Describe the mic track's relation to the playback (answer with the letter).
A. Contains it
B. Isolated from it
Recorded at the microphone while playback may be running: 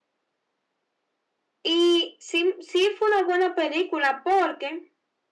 A